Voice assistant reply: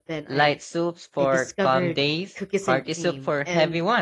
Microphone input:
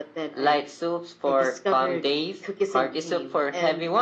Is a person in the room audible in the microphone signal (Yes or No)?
No